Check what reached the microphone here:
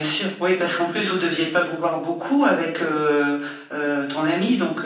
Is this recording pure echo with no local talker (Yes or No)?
Yes